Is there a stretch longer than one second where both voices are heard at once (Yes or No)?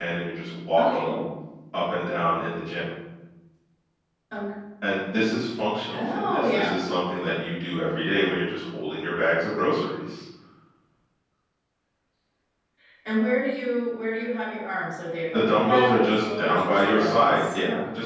Yes